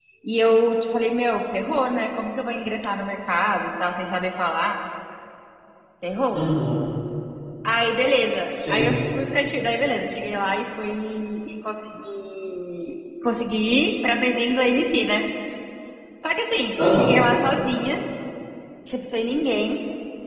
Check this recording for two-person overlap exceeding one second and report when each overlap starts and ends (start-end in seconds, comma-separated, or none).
none